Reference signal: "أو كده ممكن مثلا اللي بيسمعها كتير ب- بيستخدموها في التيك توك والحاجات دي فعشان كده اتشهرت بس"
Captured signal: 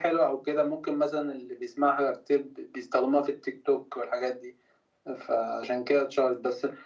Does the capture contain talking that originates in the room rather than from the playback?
No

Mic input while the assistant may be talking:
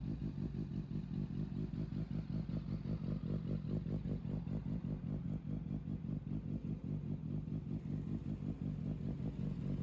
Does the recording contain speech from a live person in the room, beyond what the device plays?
No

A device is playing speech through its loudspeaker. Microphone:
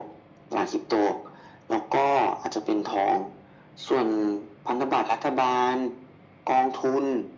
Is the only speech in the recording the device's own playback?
Yes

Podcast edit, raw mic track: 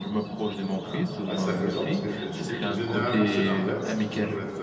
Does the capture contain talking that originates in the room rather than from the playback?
Yes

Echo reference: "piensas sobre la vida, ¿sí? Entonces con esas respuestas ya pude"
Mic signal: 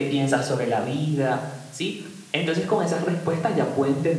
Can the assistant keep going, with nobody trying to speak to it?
Yes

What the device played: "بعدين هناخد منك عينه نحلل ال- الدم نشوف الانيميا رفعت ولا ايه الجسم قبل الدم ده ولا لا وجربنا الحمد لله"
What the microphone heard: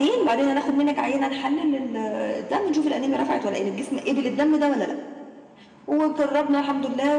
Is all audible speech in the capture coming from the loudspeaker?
Yes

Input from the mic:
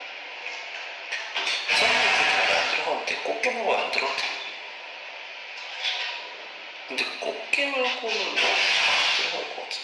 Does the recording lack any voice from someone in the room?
Yes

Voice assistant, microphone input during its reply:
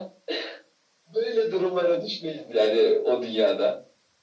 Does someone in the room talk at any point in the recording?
No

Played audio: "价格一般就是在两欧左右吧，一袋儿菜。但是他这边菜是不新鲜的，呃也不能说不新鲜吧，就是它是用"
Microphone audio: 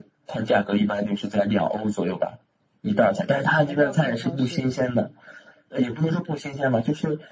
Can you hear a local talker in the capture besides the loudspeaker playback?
Yes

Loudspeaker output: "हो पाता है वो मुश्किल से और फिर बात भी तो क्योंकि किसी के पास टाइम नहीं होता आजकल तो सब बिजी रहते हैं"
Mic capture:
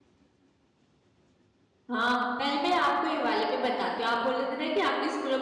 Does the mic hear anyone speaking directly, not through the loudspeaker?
Yes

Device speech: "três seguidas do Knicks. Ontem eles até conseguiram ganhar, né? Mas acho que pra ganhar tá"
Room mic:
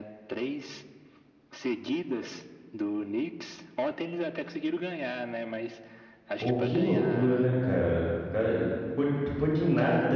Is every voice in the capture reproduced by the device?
No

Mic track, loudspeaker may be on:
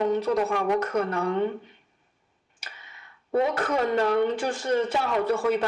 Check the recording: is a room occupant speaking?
No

